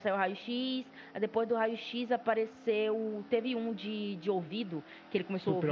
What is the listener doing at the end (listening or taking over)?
listening